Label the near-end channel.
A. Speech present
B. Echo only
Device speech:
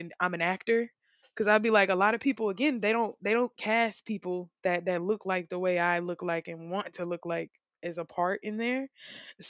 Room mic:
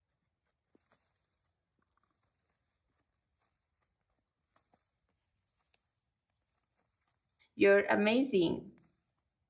A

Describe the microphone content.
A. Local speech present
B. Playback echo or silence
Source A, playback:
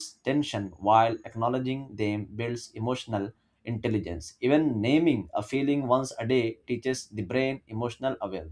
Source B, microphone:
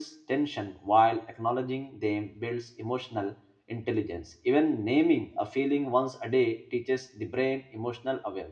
B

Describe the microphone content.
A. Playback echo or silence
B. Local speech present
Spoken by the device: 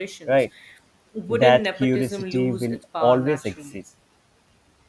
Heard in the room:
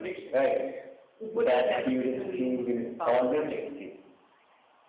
A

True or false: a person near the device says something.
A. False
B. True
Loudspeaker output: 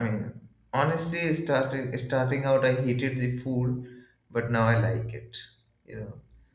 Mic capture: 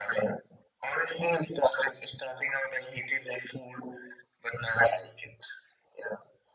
A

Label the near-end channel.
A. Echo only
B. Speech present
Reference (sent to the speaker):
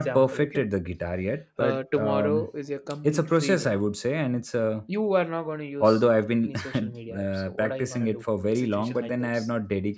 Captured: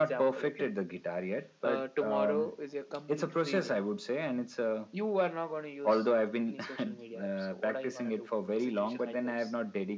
A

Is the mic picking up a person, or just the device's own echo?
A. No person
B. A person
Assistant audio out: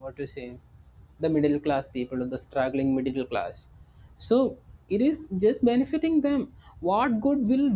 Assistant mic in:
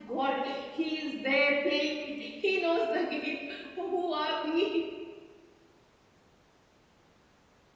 B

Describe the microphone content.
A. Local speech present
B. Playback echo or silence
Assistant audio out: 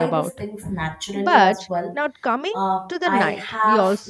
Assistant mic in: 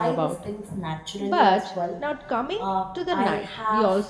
B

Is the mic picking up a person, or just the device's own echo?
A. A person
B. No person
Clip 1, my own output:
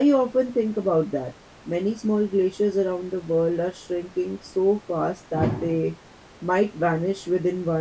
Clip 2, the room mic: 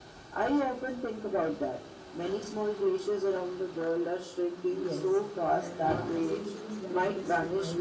A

